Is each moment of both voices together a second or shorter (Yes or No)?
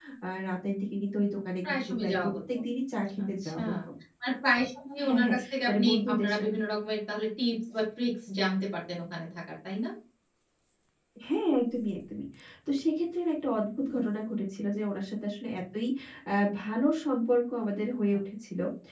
No